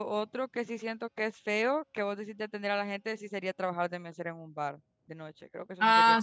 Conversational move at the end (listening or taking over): taking over